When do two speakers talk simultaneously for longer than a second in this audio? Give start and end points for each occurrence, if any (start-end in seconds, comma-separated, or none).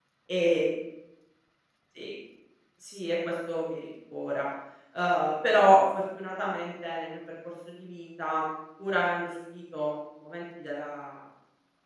none